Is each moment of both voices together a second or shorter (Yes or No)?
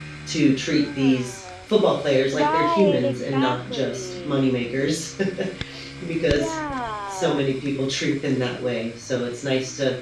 No